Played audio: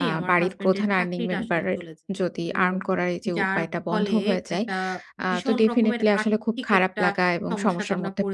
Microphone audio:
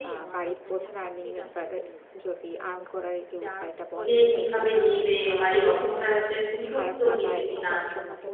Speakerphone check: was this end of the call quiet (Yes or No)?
No